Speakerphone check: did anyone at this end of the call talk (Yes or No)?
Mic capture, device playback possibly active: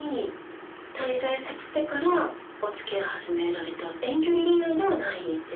No